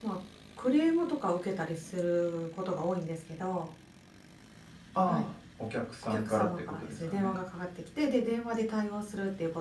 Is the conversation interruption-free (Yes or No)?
No